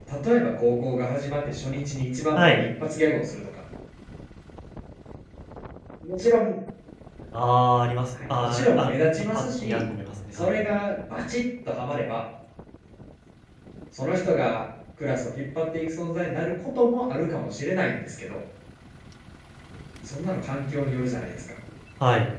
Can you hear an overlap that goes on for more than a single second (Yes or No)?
Yes